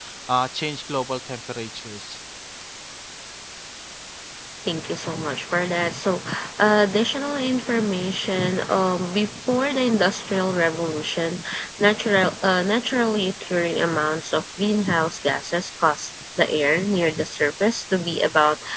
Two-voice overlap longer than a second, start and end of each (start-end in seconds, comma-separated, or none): none